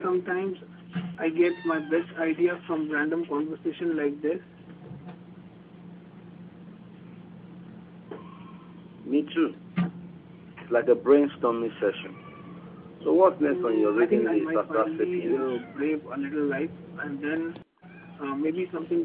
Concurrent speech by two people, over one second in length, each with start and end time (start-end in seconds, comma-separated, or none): 13.5-15.6